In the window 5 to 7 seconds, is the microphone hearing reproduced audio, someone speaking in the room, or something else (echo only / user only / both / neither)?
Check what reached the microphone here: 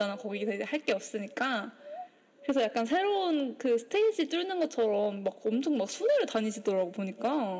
echo only